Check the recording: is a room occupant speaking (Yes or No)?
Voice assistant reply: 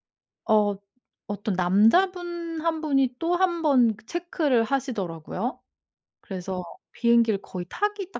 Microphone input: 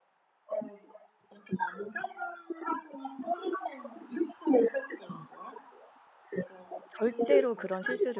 Yes